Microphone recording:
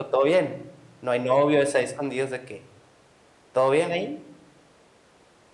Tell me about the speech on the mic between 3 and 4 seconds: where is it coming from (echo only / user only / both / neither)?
user only